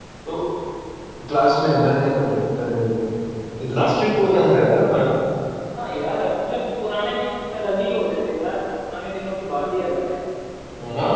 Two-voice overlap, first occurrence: none

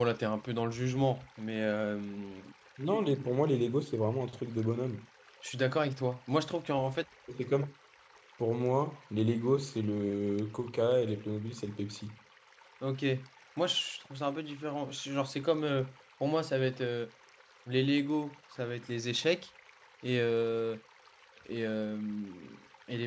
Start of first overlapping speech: none

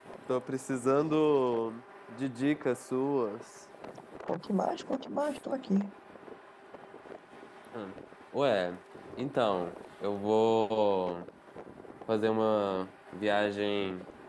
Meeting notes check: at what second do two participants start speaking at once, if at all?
none

